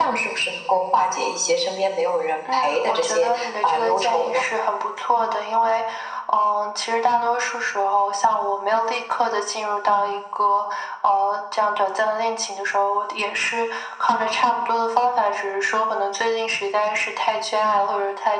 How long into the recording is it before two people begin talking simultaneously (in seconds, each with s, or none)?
2.5 s